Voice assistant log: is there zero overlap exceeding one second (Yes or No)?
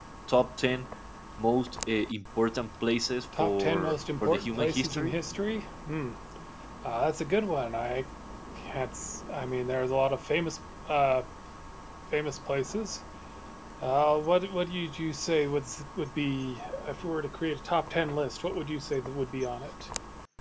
No